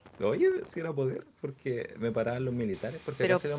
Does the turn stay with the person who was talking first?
Yes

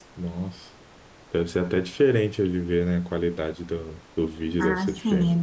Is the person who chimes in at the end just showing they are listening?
No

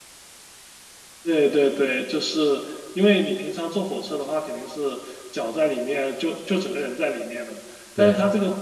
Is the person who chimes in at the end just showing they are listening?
Yes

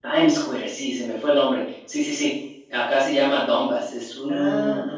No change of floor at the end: Yes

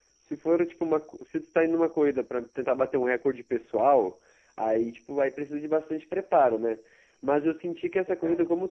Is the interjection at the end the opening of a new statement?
No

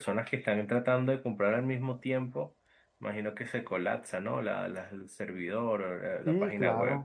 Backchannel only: No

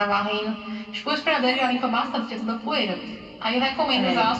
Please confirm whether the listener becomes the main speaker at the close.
No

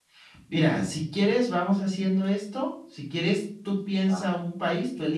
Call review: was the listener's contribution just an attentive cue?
Yes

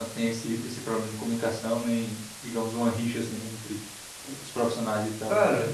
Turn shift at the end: Yes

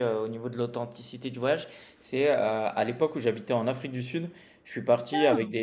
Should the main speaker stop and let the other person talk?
No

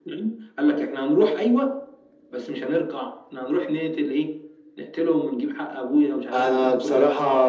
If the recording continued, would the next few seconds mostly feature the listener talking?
Yes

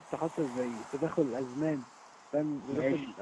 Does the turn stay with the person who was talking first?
Yes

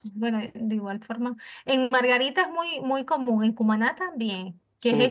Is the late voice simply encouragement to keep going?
No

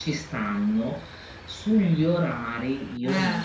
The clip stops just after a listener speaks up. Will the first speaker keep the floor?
Yes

